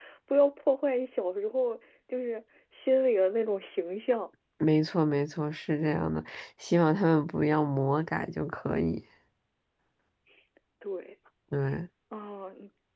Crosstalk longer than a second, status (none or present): none